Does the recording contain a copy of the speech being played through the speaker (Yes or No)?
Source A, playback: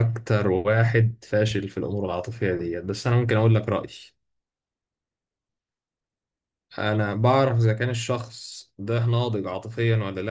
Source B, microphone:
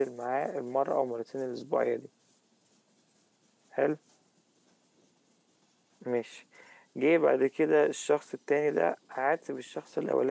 No